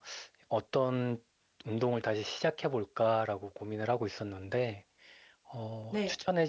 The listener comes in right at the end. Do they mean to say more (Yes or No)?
No